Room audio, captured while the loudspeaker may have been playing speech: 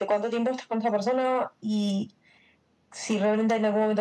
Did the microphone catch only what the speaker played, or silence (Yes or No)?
Yes